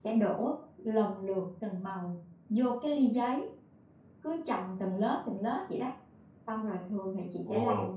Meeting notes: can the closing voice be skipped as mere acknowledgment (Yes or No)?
Yes